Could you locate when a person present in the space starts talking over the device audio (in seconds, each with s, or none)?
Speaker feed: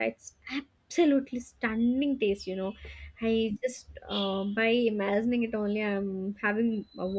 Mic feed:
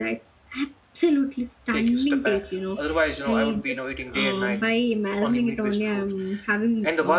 1.7 s